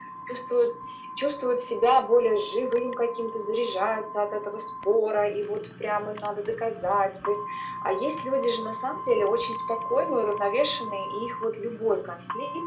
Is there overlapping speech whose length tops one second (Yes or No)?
No